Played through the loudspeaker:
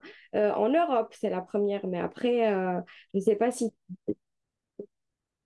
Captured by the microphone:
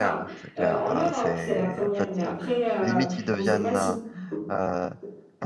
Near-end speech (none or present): present